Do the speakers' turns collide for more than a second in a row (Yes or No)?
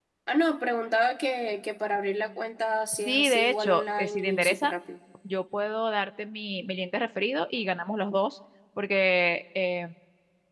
Yes